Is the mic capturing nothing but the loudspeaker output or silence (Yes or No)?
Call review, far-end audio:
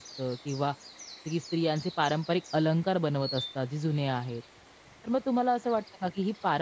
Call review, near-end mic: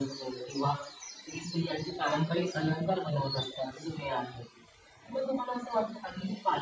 Yes